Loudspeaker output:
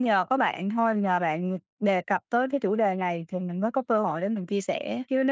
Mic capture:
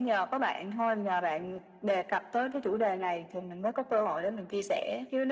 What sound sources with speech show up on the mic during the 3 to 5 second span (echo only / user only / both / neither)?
echo only